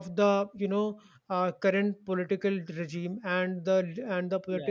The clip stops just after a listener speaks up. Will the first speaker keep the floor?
Yes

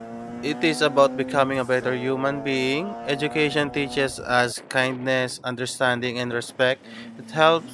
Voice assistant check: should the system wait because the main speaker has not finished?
Yes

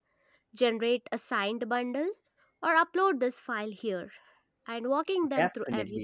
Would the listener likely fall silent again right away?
No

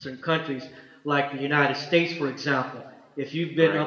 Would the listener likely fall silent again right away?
Yes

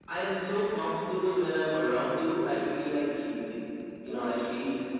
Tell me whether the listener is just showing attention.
Yes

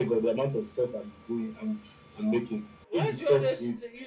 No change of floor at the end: No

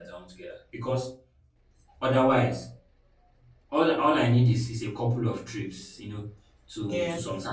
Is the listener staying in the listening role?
Yes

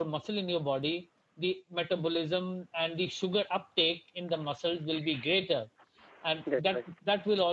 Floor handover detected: No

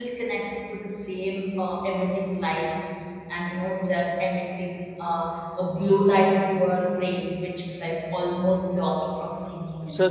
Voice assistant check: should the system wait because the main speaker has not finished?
No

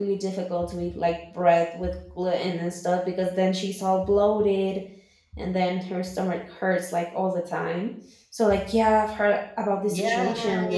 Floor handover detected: Yes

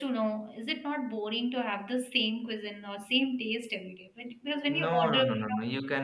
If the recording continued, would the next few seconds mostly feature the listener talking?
Yes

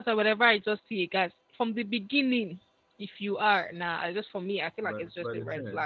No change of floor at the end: No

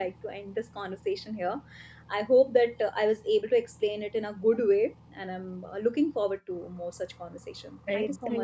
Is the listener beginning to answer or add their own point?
Yes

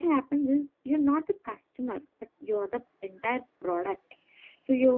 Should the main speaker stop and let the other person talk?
No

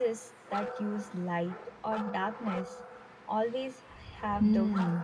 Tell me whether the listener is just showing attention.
No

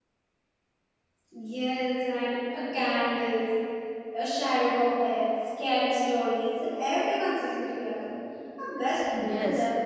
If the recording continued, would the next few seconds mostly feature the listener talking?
Yes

